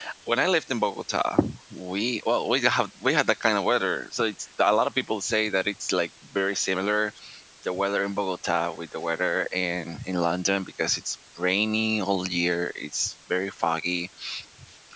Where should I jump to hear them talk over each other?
none

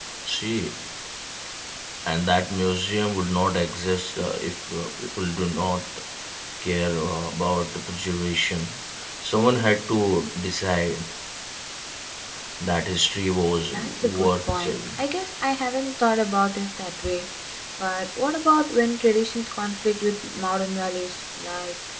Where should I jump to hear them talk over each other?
13.5 s

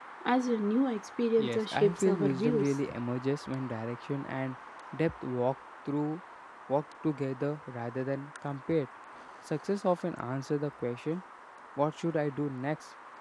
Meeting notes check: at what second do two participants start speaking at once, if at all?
1.4 s

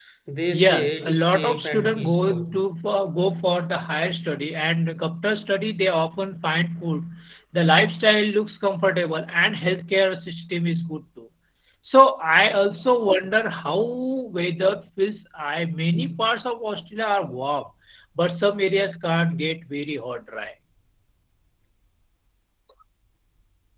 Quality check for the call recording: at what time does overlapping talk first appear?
0.5 s

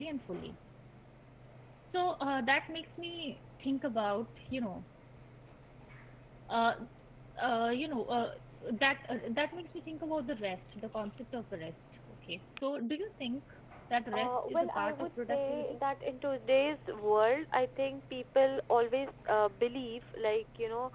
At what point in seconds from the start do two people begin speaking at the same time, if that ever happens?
14.1 s

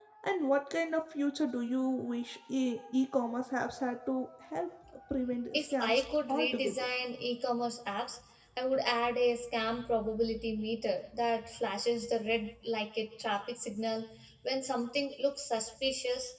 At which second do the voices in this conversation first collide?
5.5 s

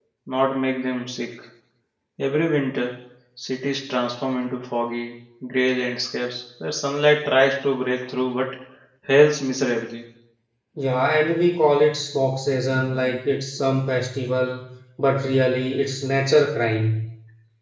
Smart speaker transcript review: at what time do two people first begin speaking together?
none

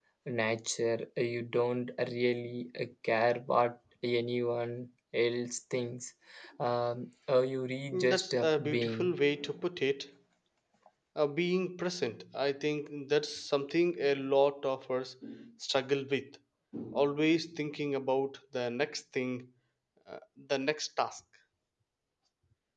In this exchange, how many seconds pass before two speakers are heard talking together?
7.9 s

